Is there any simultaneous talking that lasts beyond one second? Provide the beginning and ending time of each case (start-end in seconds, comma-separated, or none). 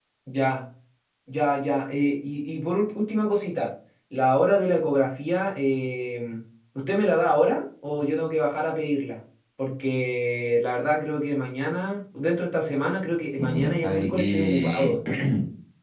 13.4-14.9